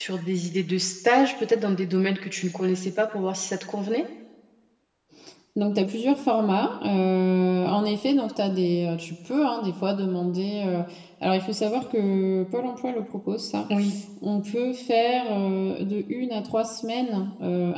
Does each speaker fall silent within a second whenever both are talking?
Yes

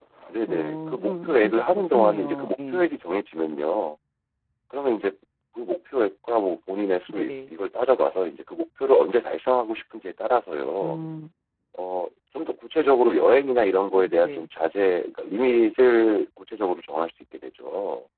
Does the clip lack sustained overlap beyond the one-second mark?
No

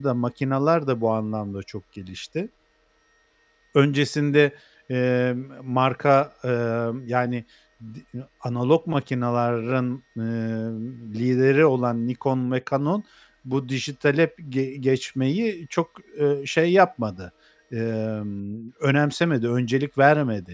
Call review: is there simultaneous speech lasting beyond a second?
No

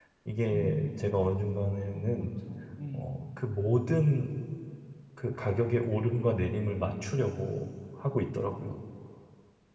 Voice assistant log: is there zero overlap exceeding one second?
Yes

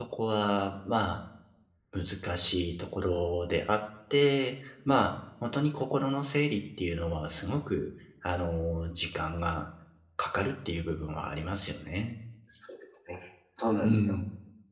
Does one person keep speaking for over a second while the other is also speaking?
No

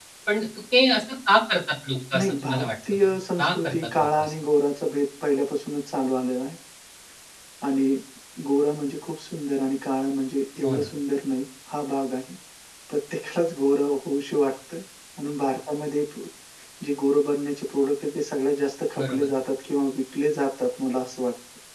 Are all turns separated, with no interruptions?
No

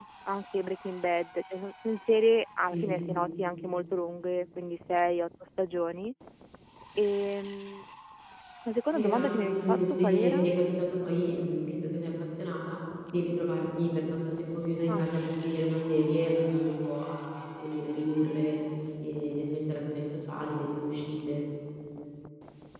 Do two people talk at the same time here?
Yes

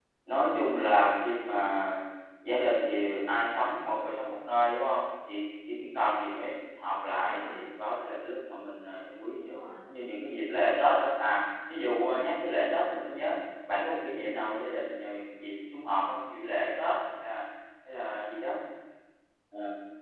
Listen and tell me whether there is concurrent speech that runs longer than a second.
No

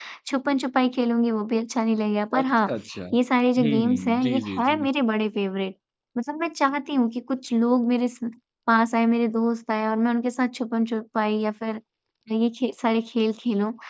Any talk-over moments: Yes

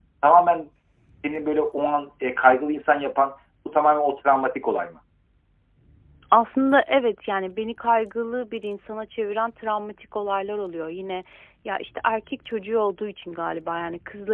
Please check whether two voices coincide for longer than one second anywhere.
No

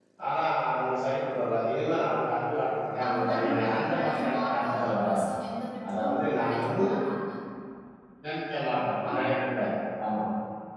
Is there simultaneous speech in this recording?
Yes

